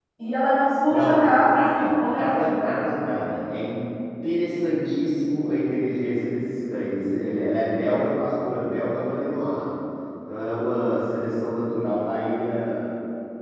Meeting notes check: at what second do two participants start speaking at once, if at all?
1 s

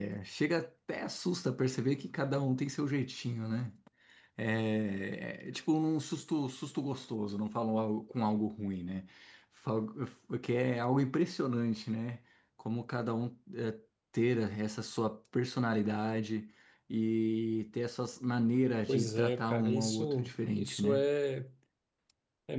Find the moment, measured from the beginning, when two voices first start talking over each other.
19 s

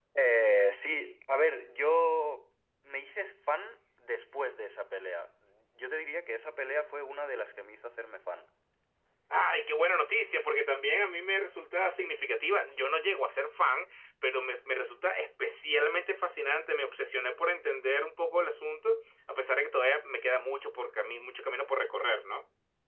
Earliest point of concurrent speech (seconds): none

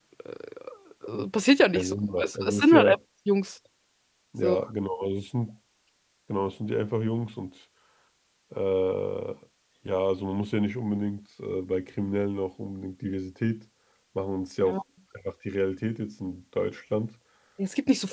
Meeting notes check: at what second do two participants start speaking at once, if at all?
2 s

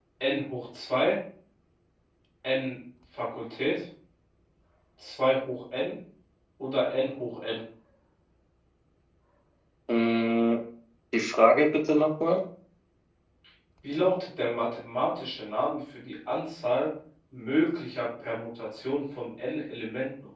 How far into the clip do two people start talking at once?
none

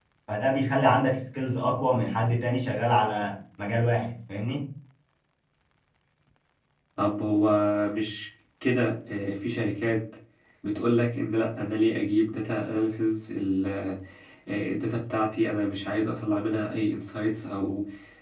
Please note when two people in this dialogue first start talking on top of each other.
none

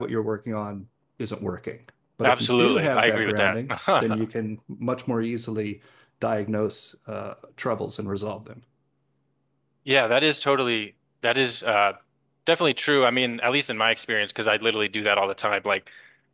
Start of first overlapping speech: 2 s

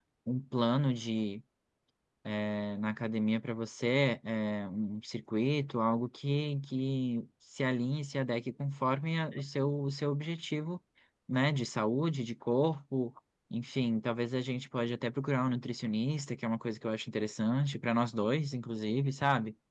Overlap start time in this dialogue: none

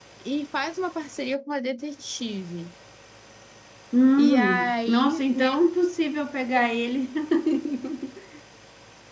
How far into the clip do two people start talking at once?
4 s

